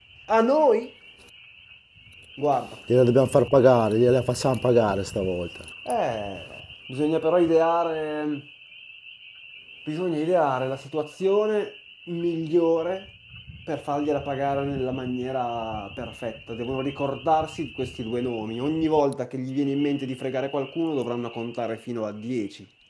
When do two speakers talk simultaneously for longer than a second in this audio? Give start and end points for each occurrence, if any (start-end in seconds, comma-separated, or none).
none